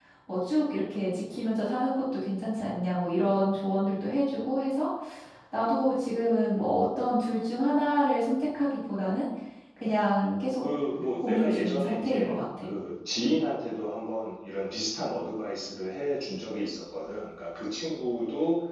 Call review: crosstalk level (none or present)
present